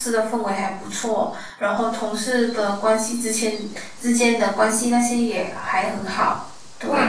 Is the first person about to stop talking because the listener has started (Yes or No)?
Yes